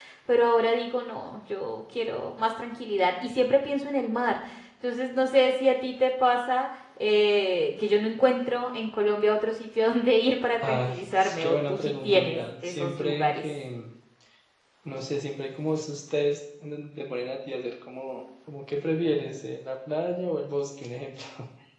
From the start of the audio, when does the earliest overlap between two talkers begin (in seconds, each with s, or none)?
10.6 s